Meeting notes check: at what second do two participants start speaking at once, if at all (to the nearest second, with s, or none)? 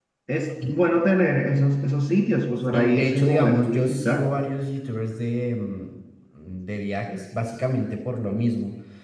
3 s